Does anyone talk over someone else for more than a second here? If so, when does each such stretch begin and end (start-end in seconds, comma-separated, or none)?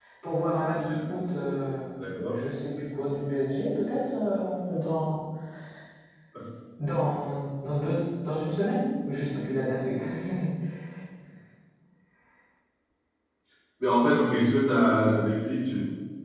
none